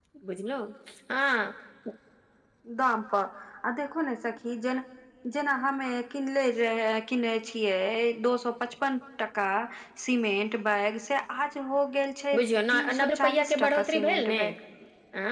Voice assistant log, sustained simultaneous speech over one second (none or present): present